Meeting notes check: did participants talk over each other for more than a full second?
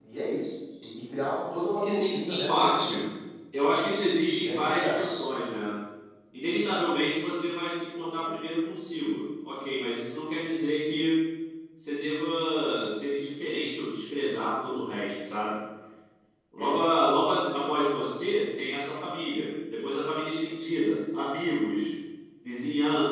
Yes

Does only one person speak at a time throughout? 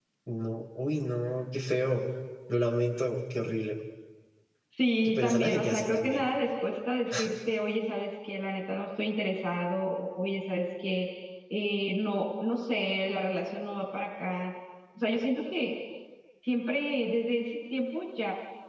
No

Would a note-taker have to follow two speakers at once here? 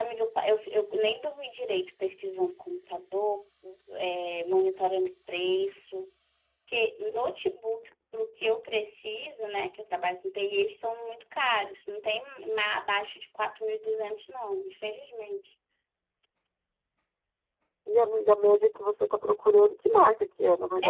No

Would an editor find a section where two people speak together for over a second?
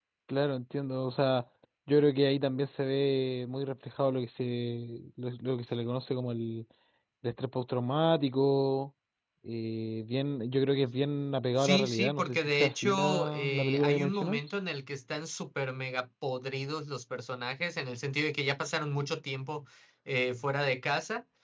Yes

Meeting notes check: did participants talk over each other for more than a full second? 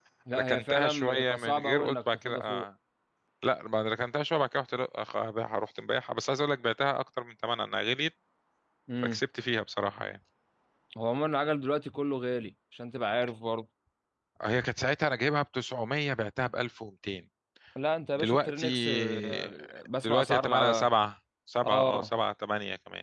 Yes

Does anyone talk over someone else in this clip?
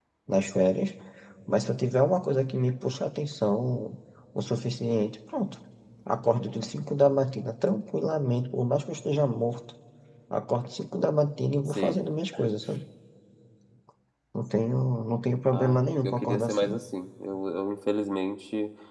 Yes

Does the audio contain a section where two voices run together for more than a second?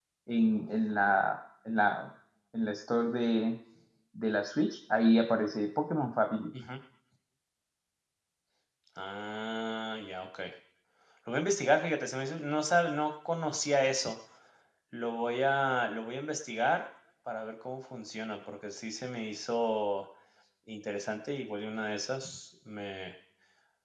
No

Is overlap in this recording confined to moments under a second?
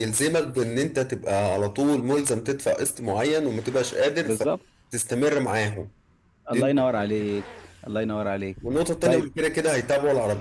Yes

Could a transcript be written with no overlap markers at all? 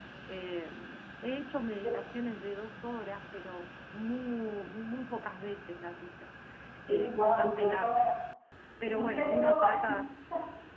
No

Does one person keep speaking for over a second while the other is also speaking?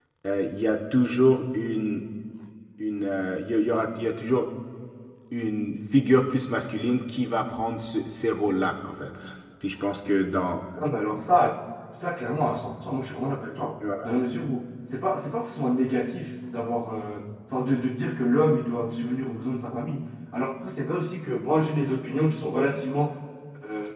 No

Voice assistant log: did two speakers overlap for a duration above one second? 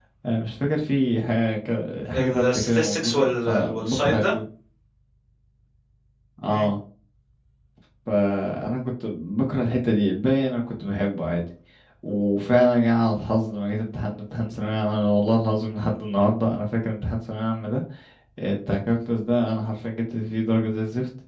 Yes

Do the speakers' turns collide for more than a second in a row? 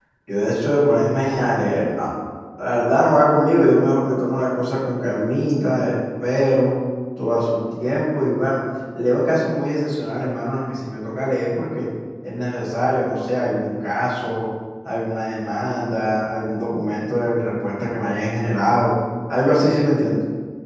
No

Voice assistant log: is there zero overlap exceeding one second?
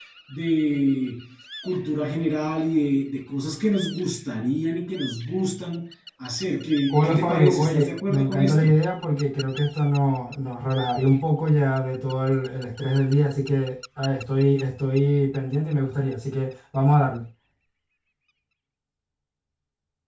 No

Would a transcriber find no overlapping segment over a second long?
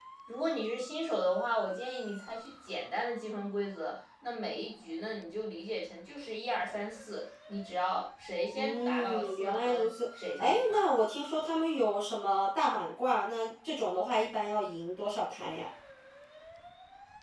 No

